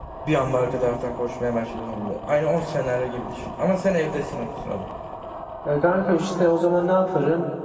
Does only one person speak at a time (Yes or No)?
Yes